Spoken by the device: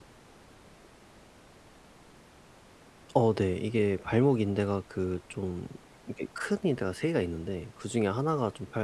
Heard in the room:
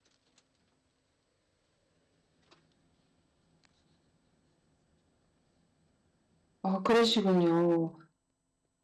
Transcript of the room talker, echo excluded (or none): 아 그러시군요.